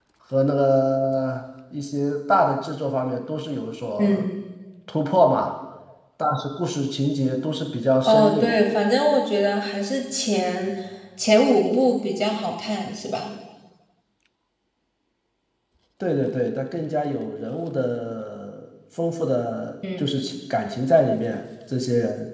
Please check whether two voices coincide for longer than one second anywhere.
No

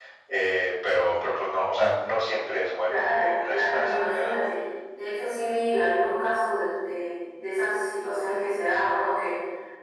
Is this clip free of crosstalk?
No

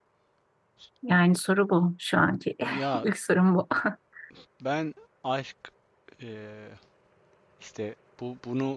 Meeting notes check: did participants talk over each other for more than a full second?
No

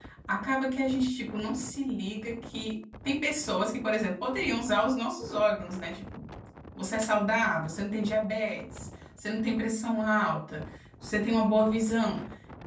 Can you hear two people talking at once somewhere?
No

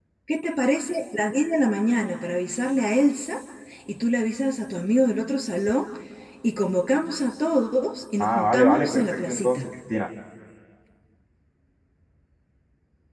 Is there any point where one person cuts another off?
Yes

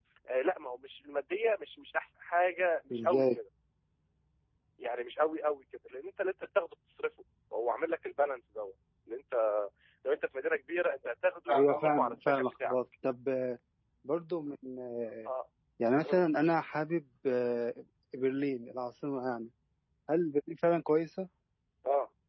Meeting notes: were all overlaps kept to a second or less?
No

